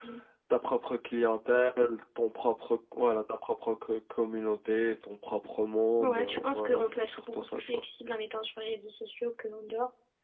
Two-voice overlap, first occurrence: 6 s

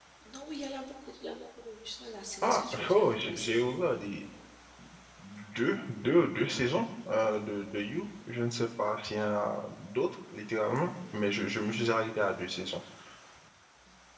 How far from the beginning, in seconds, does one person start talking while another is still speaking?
2 s

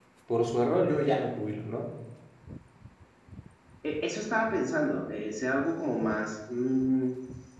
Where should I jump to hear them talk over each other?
none

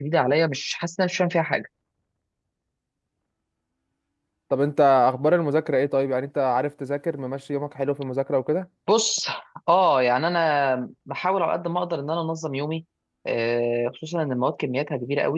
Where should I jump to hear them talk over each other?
none

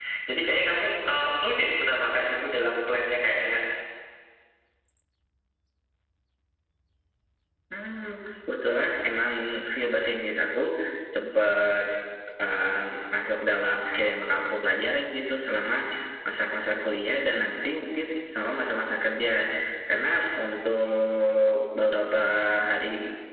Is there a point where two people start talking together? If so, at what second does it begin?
none

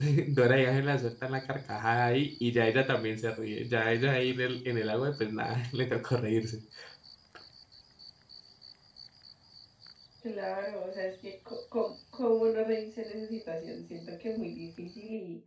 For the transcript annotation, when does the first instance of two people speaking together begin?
none

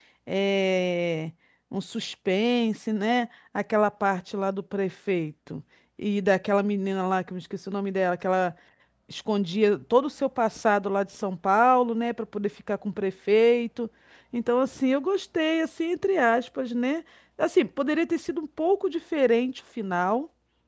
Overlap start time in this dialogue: none

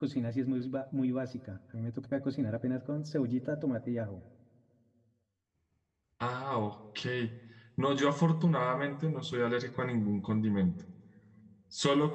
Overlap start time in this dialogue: none

